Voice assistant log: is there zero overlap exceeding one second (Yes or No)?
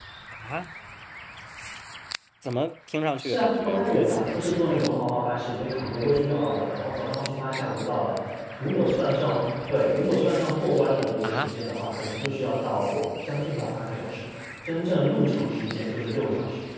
No